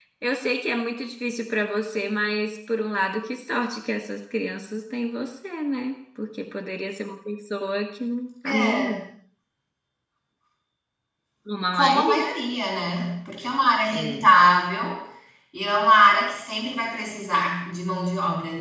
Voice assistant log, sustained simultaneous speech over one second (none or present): none